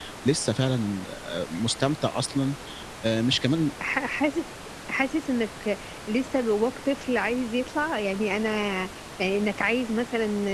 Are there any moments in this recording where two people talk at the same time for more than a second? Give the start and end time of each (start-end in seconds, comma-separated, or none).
none